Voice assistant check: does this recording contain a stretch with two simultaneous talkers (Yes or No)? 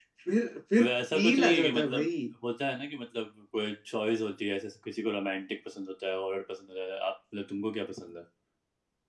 Yes